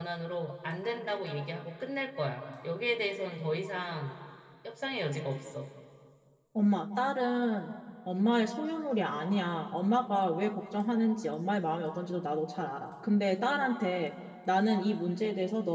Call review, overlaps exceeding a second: none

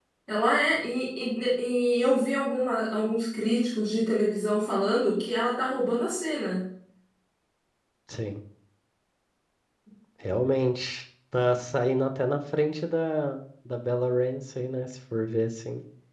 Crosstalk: none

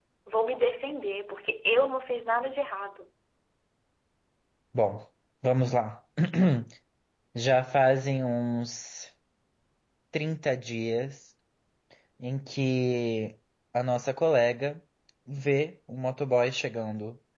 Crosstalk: none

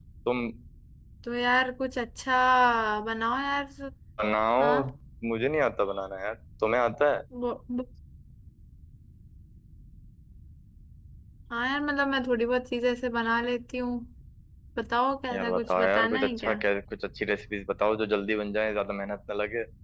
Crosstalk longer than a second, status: present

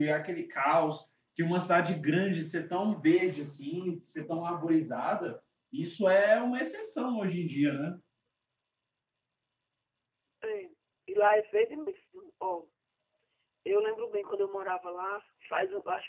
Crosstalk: none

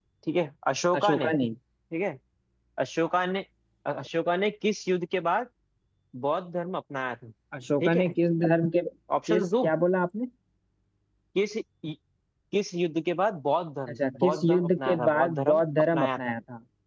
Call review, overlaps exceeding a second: present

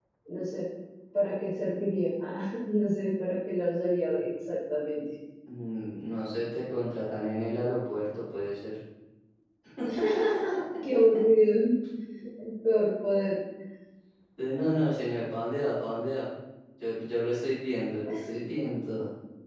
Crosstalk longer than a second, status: none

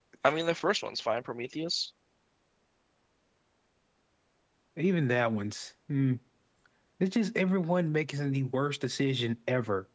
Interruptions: none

